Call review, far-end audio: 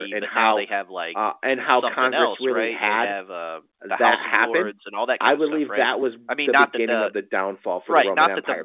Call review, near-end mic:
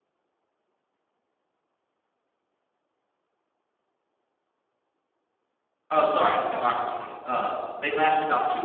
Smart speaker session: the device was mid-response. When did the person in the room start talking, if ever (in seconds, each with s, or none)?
5.9 s